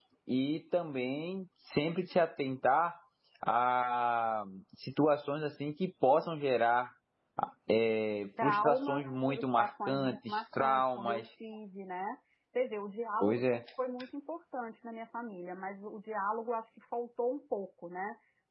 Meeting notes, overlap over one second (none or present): present